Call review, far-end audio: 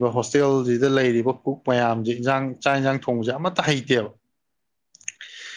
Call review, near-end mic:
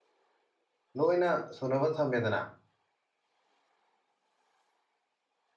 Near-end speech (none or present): present